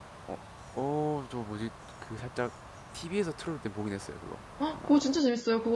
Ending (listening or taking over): taking over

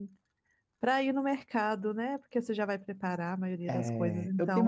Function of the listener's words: taking over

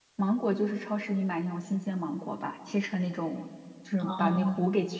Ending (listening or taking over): listening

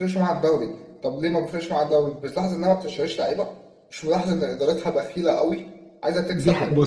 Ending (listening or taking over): taking over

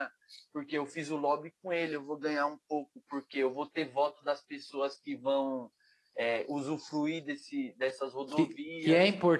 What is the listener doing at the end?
taking over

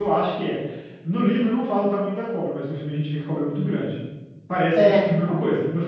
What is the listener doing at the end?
listening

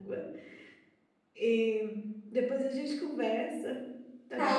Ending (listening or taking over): taking over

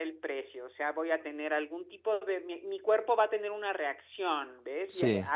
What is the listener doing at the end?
listening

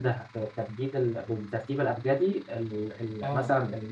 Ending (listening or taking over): taking over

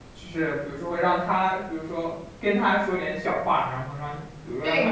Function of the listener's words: taking over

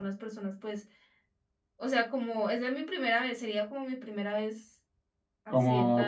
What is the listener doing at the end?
taking over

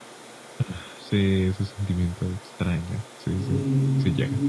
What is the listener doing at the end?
taking over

